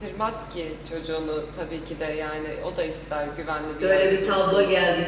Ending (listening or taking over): taking over